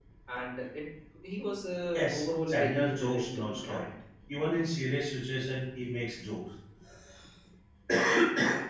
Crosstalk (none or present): present